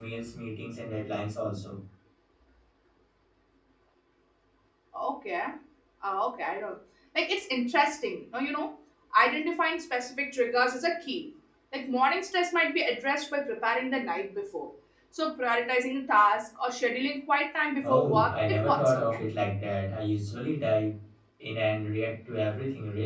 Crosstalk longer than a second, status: present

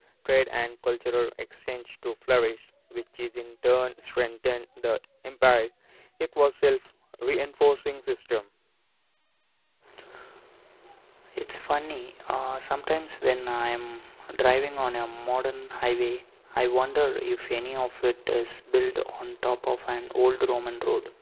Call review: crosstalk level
none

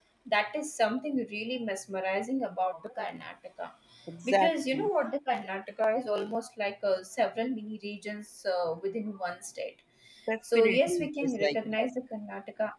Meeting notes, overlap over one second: present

